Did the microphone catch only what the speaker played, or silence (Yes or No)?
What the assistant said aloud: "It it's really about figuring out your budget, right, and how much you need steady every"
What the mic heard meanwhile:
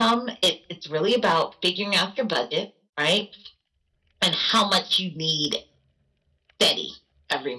Yes